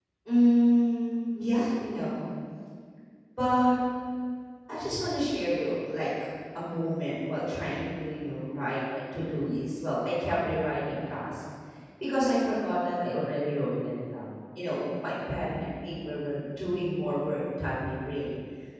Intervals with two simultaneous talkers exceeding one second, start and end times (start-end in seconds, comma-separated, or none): none